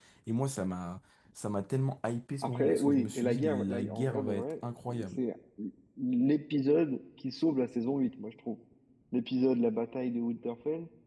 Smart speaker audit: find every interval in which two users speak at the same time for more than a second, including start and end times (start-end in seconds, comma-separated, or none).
2.4-4.5